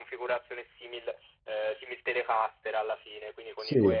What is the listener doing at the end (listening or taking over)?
listening